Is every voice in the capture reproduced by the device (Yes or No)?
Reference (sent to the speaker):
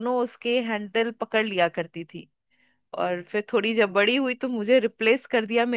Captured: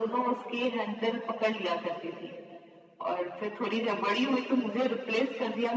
Yes